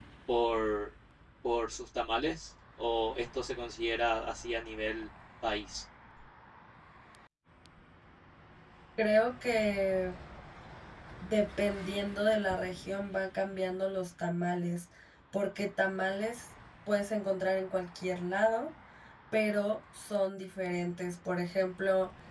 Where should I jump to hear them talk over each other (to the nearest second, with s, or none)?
none